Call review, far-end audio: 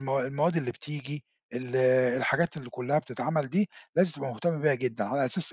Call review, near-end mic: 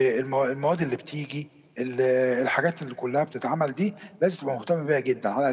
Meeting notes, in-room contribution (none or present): none